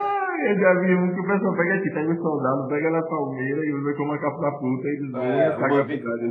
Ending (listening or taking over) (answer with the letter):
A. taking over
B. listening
A